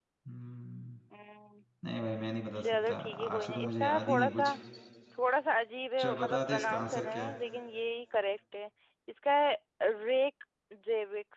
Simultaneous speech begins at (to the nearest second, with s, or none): 3 s